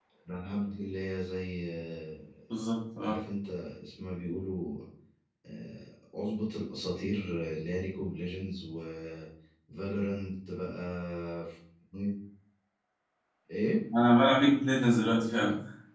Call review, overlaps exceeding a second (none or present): none